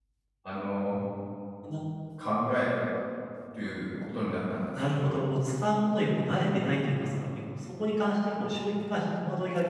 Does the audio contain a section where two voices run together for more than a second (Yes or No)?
No